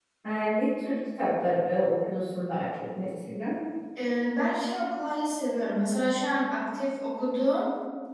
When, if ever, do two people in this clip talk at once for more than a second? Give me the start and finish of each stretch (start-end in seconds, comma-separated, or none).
none